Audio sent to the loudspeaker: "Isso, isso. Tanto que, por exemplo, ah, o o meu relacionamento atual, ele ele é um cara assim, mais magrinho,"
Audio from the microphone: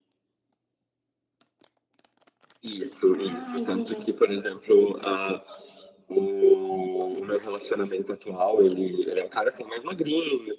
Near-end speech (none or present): present